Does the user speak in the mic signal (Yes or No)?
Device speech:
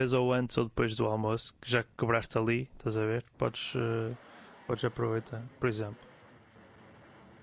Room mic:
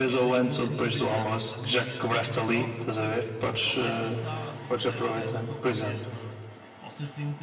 Yes